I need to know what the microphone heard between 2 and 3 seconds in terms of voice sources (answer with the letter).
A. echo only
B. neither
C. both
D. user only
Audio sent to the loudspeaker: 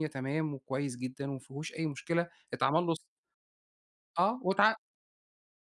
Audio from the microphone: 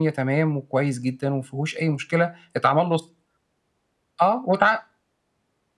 A